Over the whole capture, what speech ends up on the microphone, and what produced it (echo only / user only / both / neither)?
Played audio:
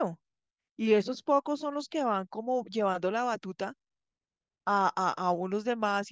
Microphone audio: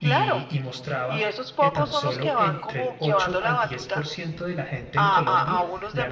both